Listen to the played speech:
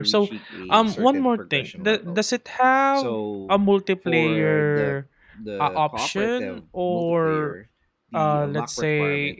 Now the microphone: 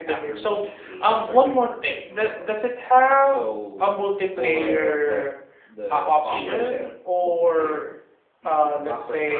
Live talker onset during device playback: 6.2 s

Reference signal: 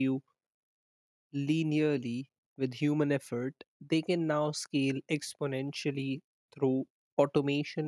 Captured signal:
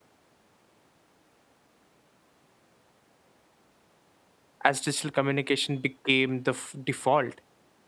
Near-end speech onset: 4.6 s

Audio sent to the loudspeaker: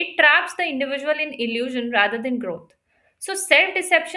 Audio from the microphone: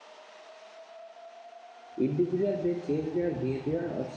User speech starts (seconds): 2.0 s

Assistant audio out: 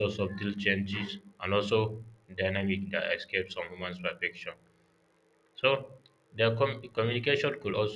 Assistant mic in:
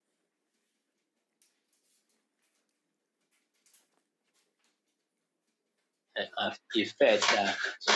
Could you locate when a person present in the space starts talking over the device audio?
6.2 s

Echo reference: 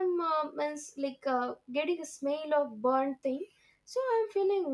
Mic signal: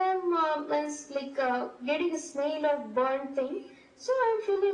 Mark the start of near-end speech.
none

